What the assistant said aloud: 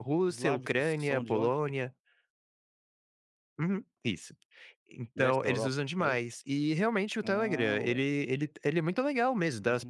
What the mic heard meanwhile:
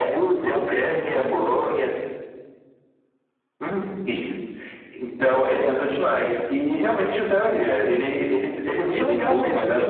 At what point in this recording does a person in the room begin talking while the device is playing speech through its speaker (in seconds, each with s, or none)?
8.9 s